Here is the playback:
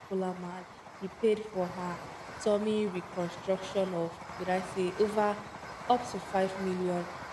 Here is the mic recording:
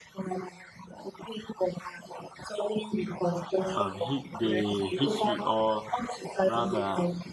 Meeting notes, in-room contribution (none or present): present